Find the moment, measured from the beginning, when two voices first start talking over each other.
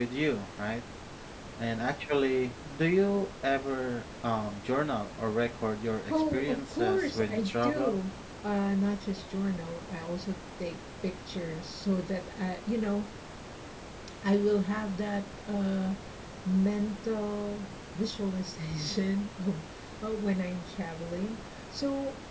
6.1 s

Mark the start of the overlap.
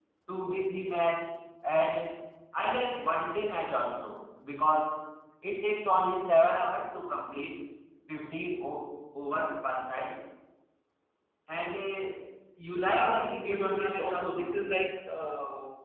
12.7 s

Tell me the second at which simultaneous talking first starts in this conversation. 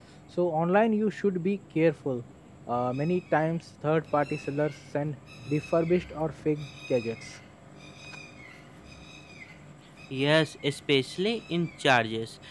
none

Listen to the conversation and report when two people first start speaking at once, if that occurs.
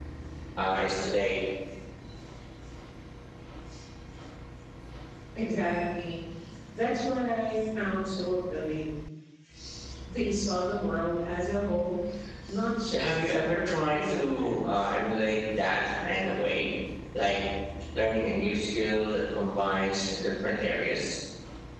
12.9 s

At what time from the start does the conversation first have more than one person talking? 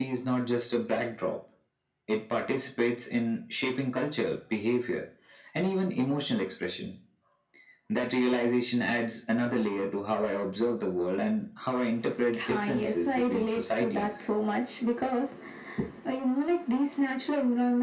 12.3 s

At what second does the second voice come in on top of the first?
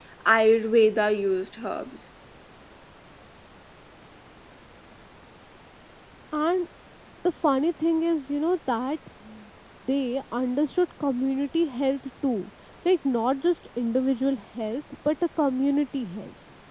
none

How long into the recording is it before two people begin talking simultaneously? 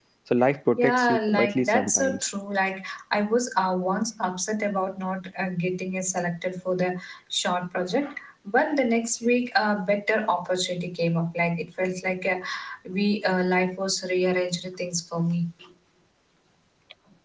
0.8 s

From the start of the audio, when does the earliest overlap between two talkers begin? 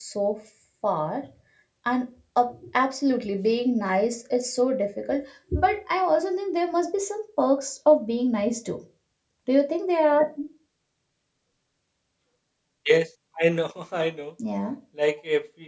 none

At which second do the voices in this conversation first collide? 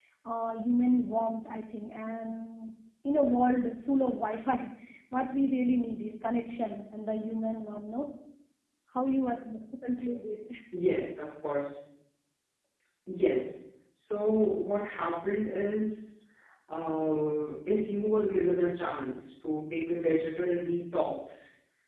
none

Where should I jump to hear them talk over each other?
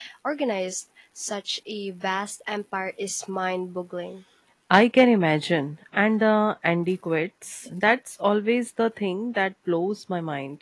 none

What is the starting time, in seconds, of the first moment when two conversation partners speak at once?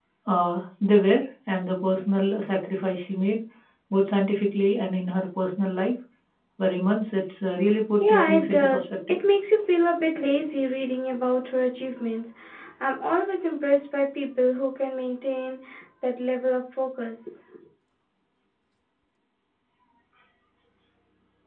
8.0 s

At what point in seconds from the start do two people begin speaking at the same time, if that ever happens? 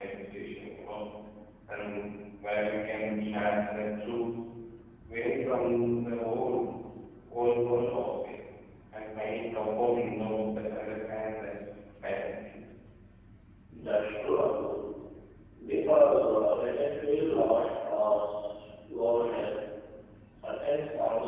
none

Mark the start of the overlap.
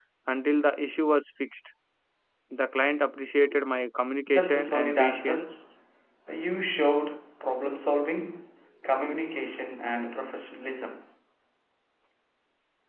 4.3 s

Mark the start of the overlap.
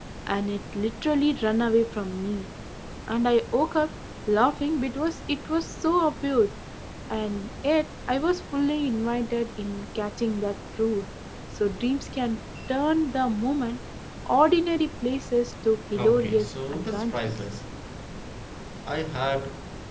15.9 s

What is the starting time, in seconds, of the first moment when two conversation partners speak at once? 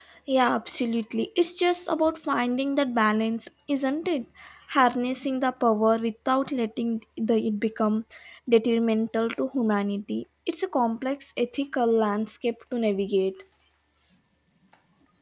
none

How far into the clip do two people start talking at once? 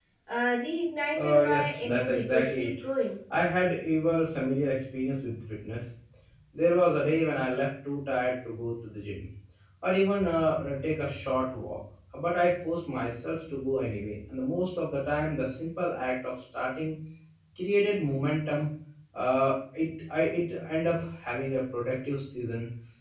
1.2 s

